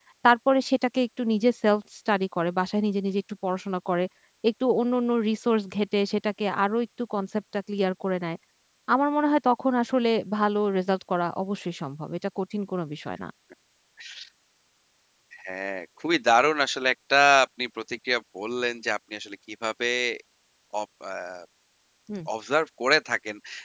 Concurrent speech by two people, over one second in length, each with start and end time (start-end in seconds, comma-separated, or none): none